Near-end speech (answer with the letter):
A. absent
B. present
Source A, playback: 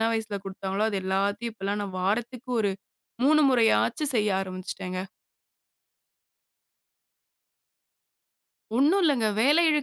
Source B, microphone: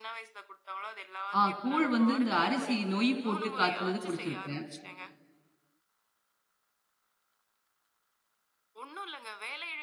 B